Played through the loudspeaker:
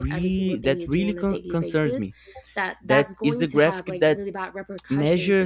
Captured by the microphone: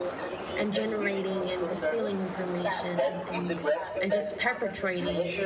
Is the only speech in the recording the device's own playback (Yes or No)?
No